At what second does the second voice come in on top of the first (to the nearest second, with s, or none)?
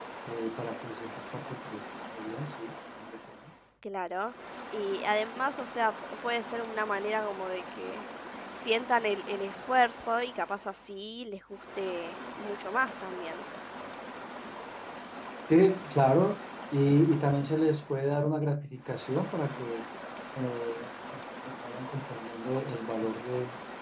none